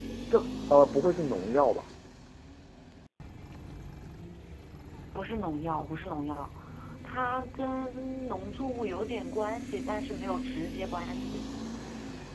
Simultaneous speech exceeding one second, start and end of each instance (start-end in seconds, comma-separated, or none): none